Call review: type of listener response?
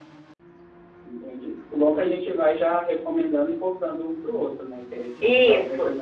taking over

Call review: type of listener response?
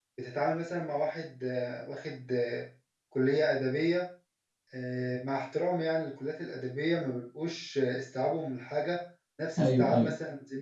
listening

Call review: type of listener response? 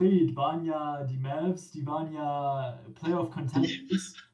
listening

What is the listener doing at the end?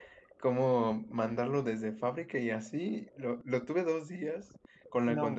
listening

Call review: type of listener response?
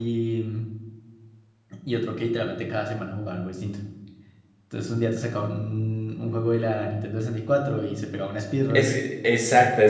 taking over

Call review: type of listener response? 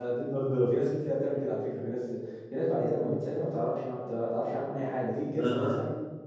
listening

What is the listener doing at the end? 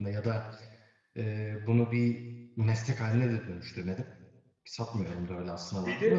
listening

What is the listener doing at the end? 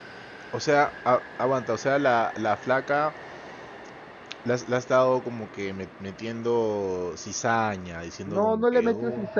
taking over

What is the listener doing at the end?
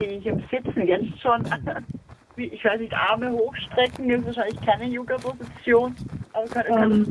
listening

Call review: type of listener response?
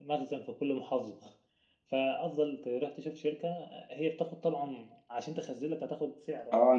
taking over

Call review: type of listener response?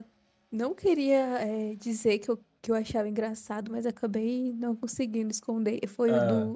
listening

